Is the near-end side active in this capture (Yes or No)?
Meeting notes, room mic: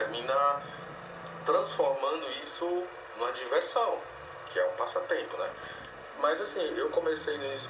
No